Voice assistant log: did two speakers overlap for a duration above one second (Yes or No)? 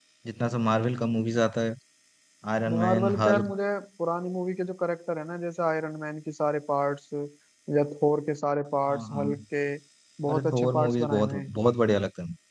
Yes